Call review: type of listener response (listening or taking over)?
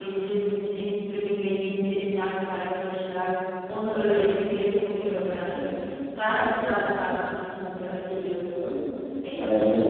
taking over